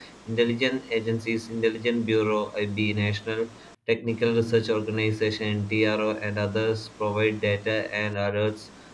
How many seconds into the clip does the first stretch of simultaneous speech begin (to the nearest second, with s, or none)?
none